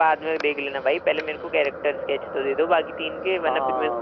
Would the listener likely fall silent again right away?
No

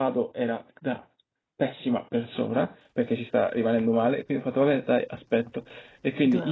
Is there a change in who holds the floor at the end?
No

